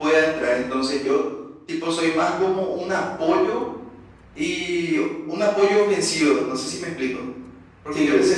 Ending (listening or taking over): listening